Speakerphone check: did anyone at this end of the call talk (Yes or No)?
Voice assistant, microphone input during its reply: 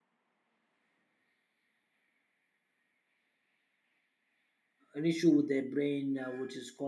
Yes